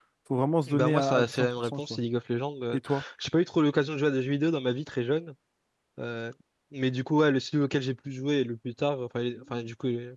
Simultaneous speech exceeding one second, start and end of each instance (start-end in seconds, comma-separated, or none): 0.7-2.0